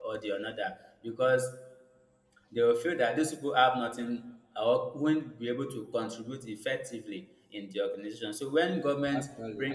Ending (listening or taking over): listening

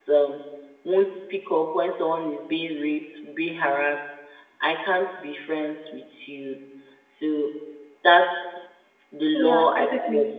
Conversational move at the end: taking over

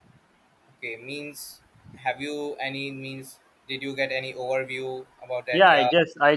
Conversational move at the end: taking over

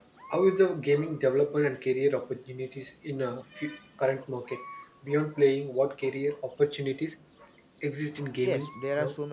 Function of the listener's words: taking over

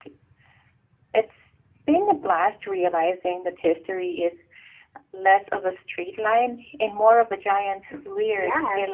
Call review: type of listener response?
taking over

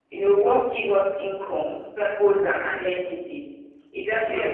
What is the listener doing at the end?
listening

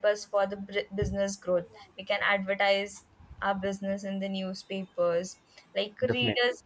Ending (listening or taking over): listening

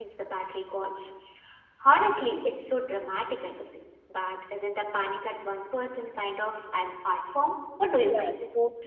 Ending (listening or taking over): taking over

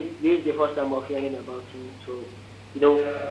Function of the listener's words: listening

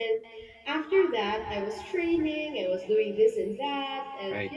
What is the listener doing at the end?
listening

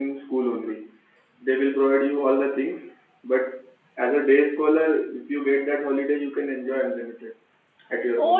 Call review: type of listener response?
taking over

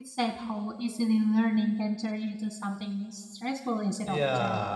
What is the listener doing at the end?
taking over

